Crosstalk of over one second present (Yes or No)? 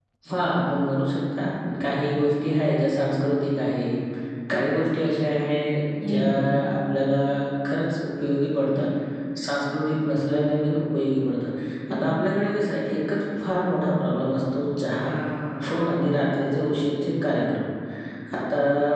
No